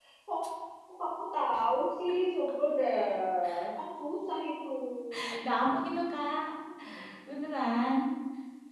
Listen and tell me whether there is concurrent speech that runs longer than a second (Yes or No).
No